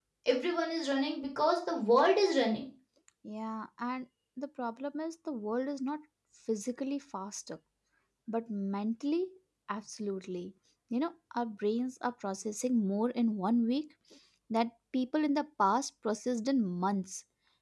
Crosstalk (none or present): none